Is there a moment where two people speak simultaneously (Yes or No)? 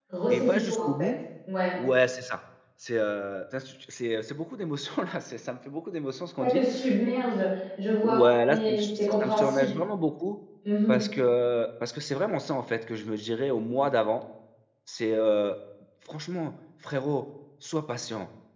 Yes